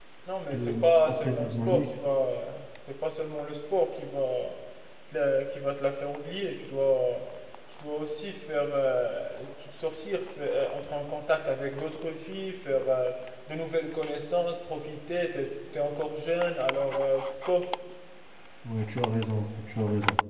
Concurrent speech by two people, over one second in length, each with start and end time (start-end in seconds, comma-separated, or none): 0.5-1.9